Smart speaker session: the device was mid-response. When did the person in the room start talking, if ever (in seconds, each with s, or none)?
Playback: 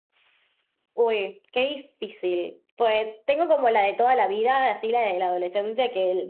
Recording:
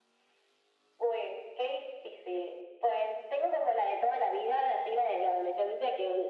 none